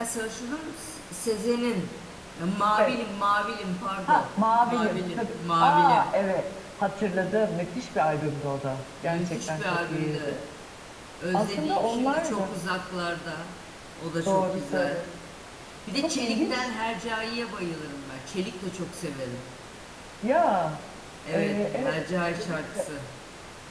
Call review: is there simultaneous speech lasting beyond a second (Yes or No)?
Yes